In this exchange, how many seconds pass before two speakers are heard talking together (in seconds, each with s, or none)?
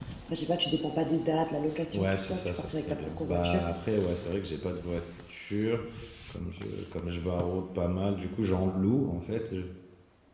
1.9 s